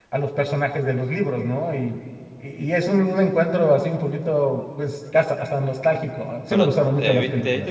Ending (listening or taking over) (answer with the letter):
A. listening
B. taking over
B